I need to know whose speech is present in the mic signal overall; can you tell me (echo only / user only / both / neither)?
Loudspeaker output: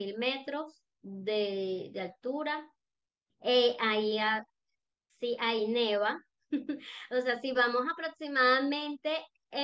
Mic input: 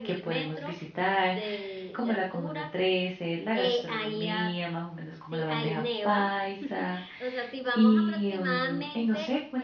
both